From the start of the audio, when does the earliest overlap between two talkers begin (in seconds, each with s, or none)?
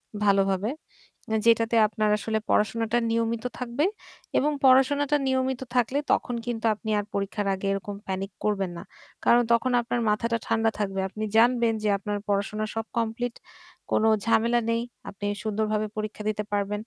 none